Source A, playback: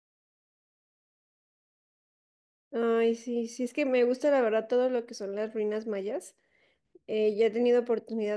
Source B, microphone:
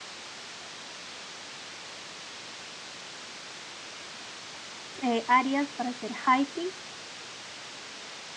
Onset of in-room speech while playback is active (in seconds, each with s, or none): 5.0 s